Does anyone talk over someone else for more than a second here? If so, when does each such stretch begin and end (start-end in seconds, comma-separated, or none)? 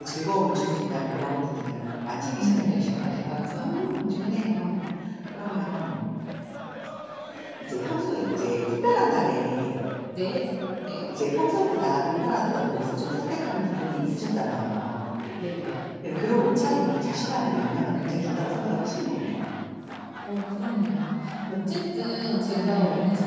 2.4-4.7